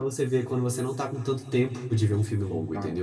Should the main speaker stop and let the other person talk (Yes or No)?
Yes